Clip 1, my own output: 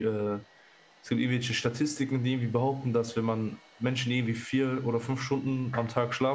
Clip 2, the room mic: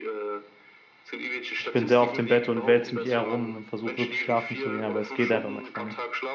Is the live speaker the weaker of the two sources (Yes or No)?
No